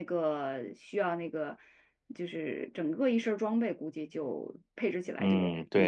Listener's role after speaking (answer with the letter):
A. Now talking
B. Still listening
A